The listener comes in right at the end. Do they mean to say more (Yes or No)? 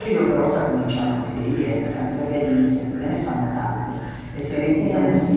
No